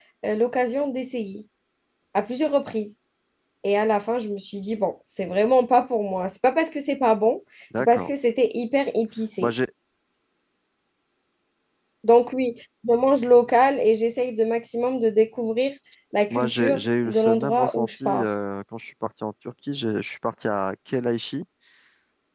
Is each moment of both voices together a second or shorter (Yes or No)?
No